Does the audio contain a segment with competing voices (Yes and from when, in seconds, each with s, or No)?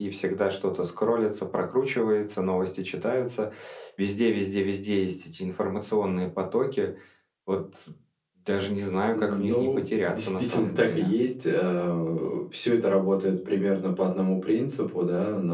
Yes, from 9.1 s